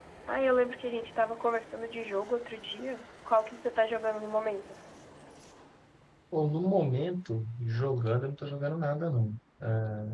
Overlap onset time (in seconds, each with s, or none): none